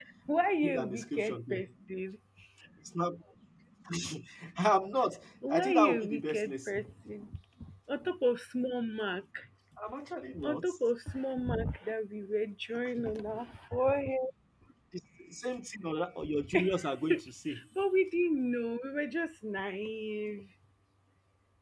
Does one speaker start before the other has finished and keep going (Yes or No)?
Yes